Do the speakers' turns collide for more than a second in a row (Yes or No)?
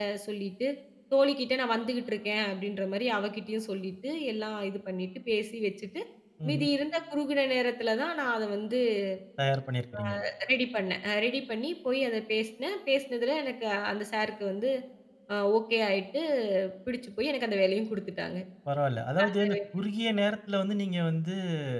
No